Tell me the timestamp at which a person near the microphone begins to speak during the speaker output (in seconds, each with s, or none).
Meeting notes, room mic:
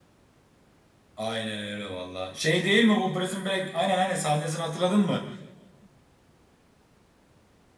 1.1 s